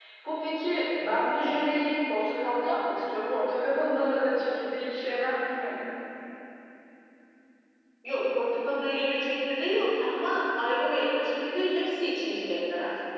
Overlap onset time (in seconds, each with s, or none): none